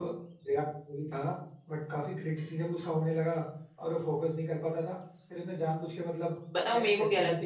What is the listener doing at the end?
taking over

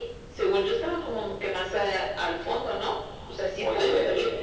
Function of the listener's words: taking over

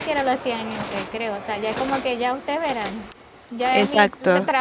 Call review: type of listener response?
listening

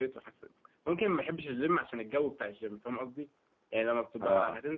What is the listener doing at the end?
listening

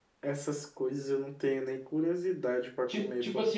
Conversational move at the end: taking over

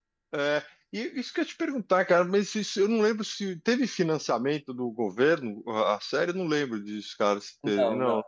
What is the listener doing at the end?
taking over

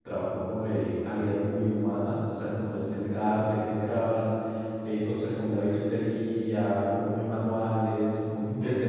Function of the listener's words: listening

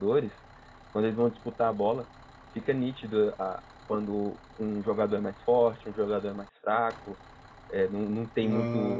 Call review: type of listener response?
listening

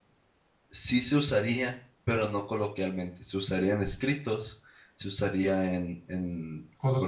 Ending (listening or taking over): listening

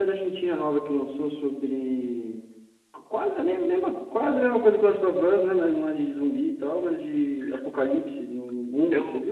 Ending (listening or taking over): taking over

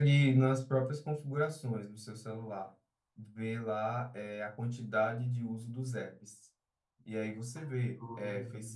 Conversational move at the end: listening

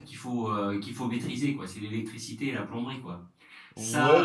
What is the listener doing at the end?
taking over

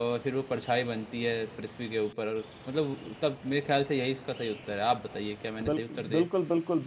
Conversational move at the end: taking over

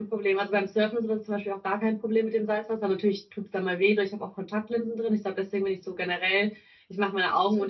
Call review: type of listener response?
listening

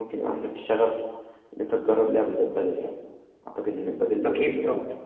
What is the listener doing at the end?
taking over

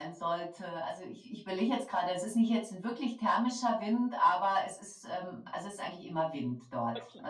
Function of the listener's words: listening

